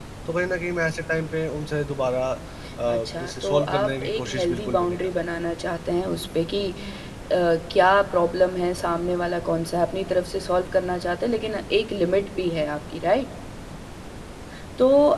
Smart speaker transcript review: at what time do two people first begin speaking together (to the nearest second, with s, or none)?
3 s